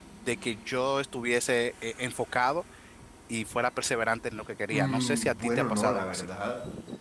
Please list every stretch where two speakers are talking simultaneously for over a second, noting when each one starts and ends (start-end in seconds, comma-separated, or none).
4.7-6.3